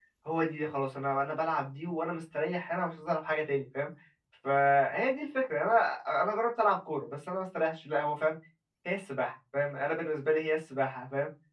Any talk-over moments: No

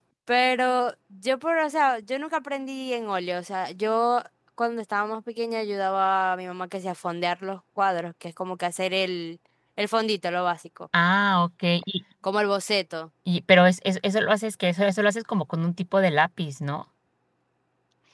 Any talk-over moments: No

